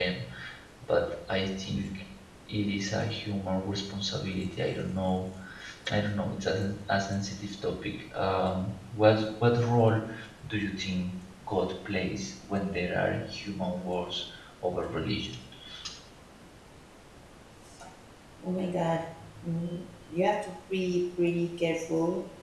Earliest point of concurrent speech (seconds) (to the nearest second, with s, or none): none